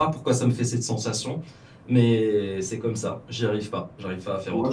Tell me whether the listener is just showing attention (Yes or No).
No